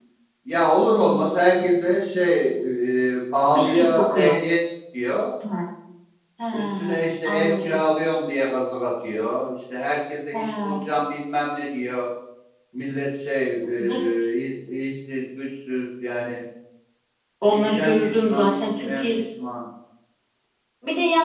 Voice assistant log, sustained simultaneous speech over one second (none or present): present